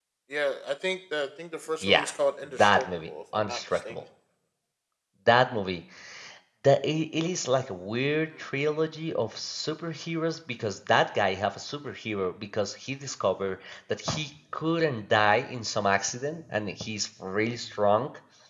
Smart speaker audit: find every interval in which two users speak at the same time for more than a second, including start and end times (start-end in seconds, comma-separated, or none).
2.6-3.9